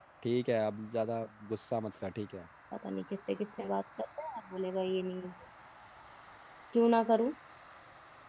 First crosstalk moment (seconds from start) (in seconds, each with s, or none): none